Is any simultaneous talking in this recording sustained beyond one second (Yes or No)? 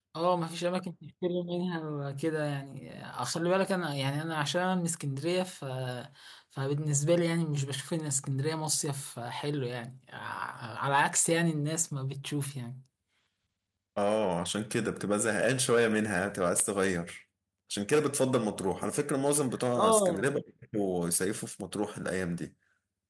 No